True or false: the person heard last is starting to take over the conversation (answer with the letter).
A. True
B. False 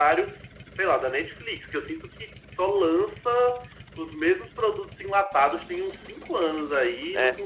B